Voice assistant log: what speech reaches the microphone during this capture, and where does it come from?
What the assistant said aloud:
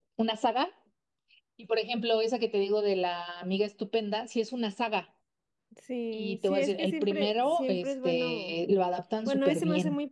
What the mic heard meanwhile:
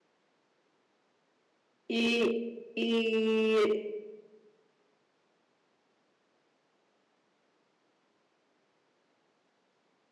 user only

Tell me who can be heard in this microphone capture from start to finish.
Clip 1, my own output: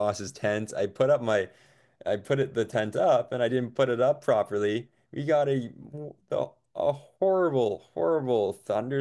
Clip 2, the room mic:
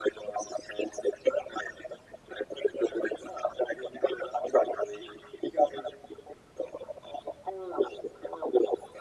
echo only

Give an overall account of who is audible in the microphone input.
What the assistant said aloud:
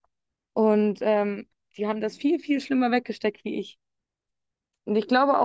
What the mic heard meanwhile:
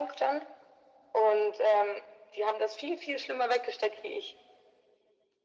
echo only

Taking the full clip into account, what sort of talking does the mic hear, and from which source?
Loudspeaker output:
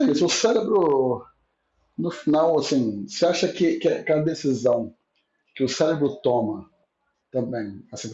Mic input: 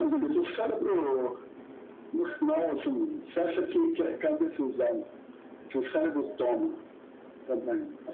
echo only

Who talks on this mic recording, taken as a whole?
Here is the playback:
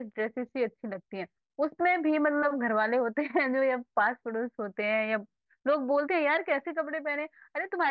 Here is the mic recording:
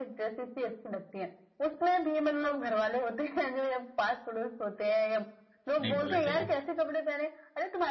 both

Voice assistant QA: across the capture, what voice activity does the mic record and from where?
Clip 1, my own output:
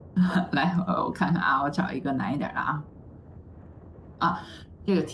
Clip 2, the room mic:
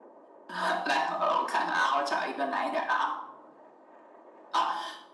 echo only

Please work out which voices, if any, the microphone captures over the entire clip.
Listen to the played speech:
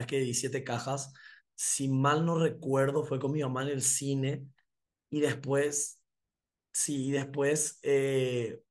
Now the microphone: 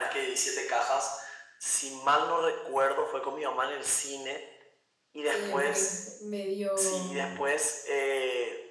both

